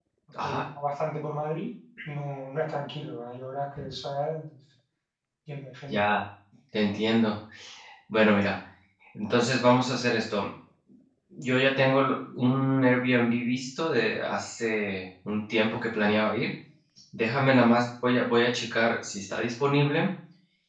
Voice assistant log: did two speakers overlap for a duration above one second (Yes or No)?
No